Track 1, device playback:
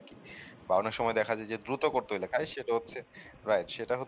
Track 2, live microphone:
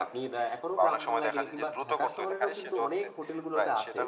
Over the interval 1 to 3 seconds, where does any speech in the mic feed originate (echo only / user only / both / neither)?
both